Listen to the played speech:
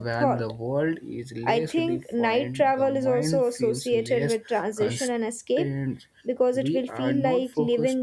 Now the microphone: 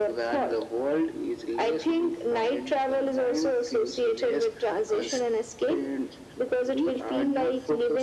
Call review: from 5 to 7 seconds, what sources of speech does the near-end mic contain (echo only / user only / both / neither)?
echo only